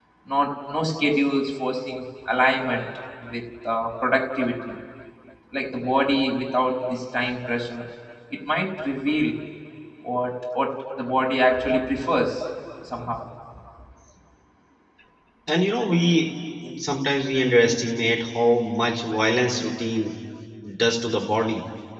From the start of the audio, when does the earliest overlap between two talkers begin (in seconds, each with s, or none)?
none